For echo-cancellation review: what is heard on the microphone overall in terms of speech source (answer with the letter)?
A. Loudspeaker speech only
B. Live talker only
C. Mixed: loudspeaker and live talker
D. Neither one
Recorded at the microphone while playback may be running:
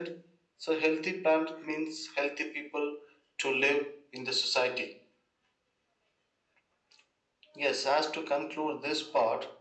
A